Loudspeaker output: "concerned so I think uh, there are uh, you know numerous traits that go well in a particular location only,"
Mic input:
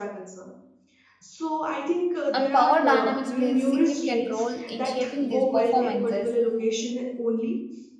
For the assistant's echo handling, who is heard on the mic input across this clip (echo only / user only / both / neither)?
both